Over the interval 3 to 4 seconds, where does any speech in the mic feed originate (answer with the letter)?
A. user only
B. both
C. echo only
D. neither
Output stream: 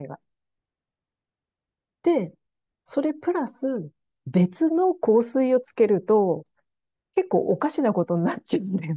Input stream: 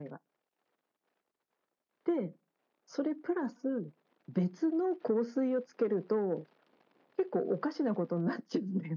C